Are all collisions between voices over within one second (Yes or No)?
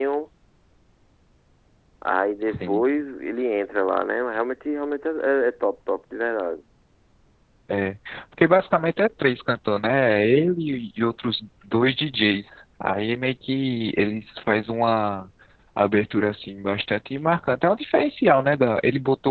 Yes